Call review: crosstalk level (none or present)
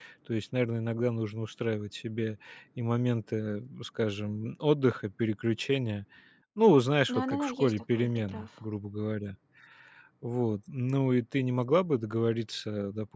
present